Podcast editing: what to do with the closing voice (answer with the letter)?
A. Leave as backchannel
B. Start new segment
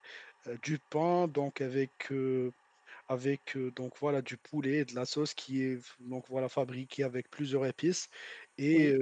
A